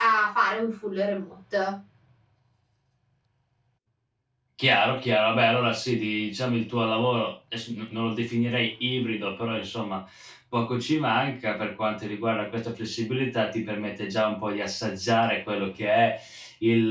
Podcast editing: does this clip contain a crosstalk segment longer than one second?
No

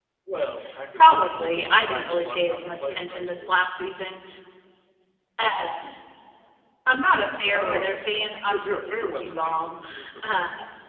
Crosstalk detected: Yes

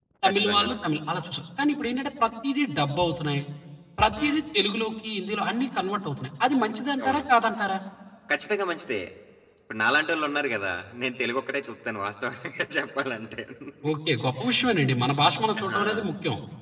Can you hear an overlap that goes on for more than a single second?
No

